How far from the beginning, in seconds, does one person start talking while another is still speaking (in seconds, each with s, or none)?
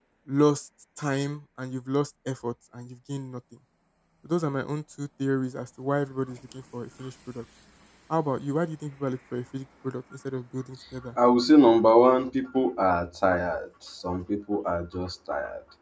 none